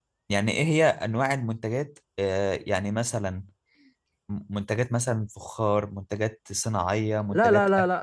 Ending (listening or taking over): taking over